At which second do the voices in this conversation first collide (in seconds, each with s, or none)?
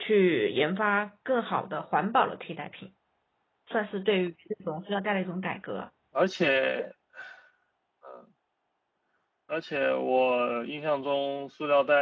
none